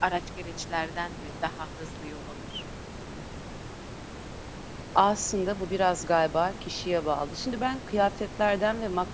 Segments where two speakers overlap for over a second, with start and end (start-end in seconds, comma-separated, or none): none